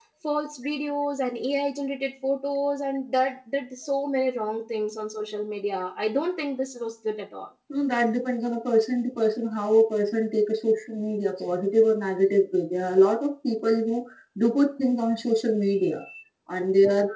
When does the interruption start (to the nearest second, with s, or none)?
none